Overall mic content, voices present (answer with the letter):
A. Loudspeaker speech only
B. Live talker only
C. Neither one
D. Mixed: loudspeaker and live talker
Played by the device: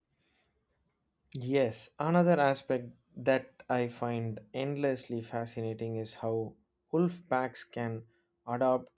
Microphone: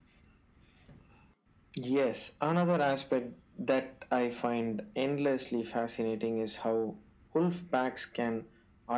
A